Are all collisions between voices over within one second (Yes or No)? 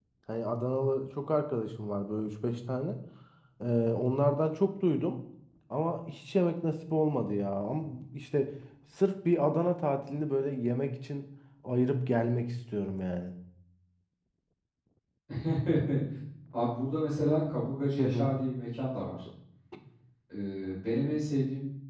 Yes